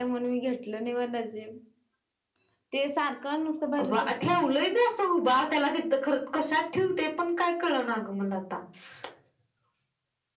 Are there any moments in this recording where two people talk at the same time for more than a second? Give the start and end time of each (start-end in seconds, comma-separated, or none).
none